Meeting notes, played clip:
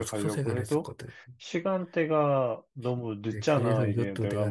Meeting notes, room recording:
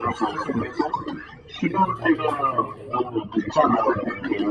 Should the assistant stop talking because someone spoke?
Yes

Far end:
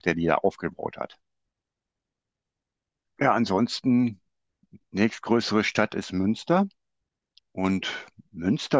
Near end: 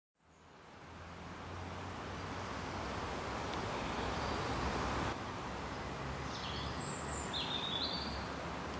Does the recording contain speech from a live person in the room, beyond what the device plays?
No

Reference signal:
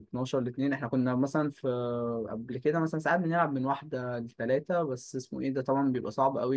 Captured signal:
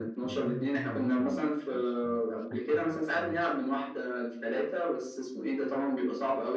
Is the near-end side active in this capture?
Yes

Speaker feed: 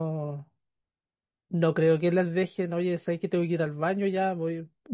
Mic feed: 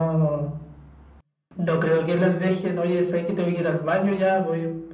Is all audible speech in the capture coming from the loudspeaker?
Yes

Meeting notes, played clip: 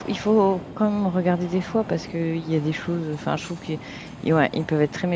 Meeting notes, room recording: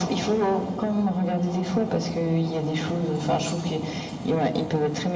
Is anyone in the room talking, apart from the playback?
No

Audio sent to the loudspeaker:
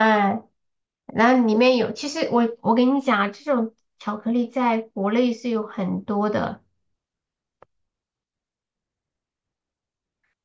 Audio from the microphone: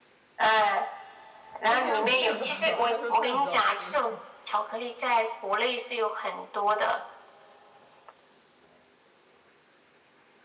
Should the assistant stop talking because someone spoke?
Yes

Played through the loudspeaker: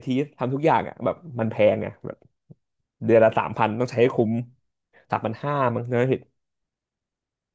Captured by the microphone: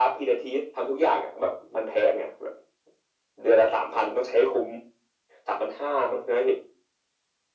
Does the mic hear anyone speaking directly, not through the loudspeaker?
No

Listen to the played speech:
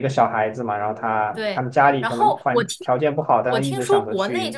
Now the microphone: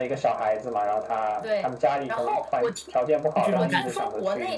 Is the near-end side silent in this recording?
No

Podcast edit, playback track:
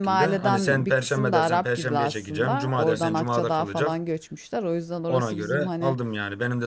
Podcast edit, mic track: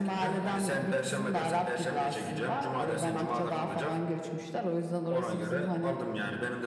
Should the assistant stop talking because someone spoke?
No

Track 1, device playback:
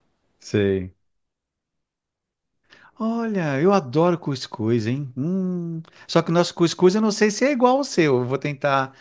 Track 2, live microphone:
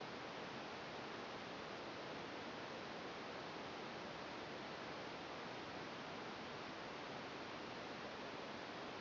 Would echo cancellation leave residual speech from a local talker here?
No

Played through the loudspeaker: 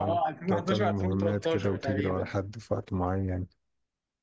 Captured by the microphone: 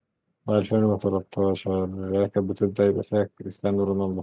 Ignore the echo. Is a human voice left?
Yes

